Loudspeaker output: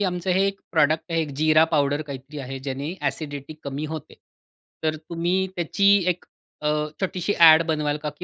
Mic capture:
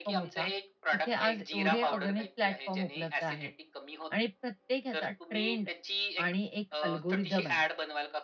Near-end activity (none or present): present